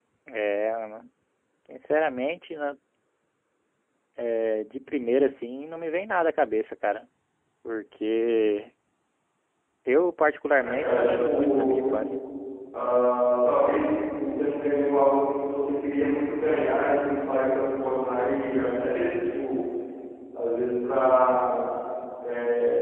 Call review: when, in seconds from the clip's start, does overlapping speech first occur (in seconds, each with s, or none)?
10.5 s